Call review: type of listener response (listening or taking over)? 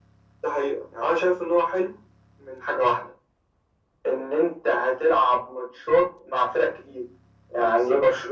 listening